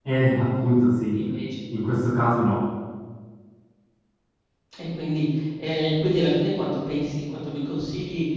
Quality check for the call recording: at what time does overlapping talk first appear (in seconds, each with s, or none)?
none